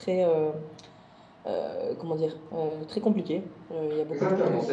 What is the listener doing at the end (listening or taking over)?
taking over